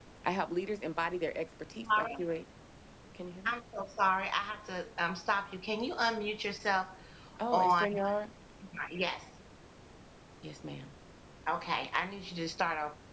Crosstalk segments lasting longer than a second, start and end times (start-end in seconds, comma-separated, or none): none